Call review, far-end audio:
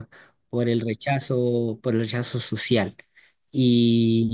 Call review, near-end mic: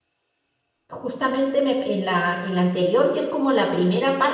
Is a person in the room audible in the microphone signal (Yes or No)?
Yes